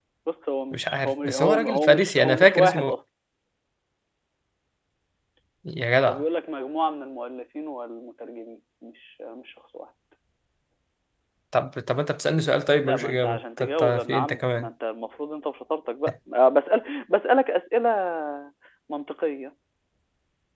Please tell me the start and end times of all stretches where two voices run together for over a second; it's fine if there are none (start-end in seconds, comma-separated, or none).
0.7-3.0, 12.8-14.7